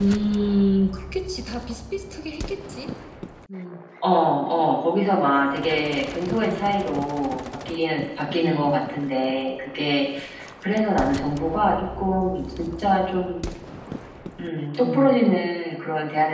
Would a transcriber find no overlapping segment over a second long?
Yes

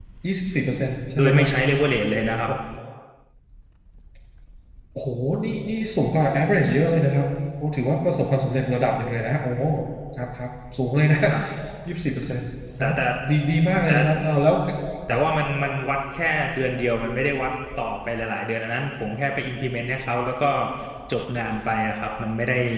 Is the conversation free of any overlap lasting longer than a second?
Yes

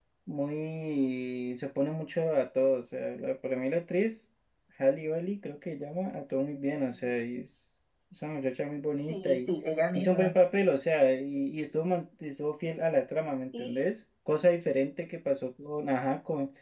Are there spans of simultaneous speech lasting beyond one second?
No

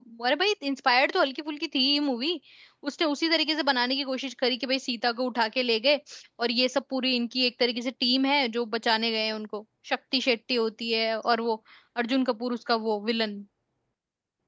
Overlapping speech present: No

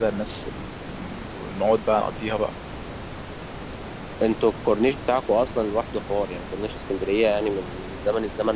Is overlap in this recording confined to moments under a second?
Yes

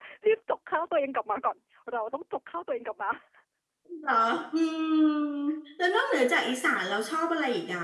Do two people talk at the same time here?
No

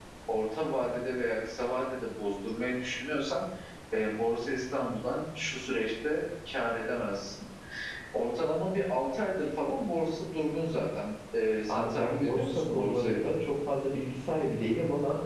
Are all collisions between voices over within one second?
No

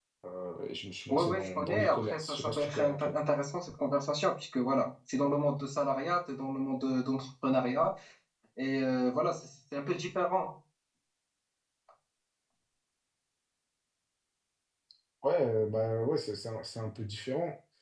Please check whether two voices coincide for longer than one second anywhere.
Yes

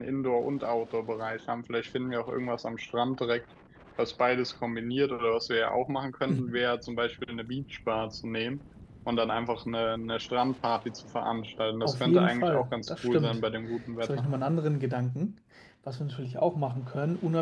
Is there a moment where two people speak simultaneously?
Yes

